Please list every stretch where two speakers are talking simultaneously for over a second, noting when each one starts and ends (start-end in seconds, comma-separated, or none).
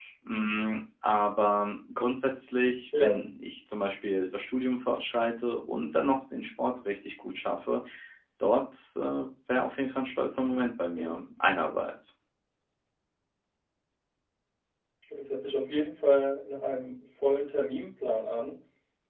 none